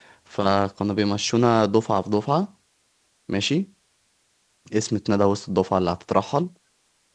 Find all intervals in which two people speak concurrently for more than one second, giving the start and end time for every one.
none

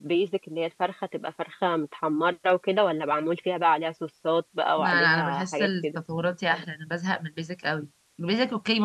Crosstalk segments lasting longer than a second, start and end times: 4.8-6.0

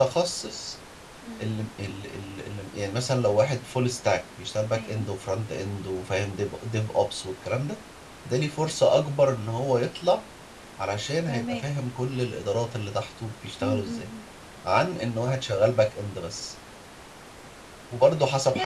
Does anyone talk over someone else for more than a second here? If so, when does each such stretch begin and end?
none

